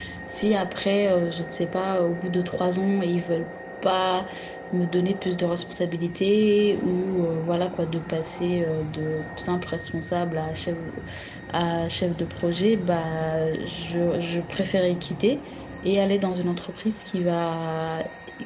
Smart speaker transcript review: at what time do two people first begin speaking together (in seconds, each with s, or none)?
none